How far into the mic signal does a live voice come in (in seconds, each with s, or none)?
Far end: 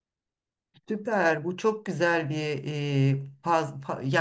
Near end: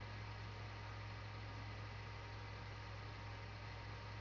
none